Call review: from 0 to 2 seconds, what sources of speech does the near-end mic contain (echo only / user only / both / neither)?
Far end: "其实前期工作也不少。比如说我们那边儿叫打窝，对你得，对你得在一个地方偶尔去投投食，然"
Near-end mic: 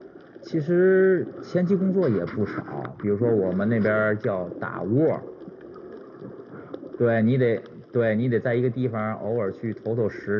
echo only